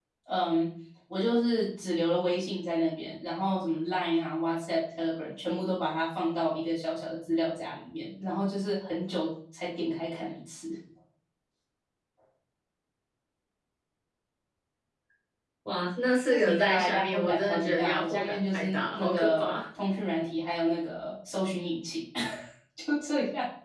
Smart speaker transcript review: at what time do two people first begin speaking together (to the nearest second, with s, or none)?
16 s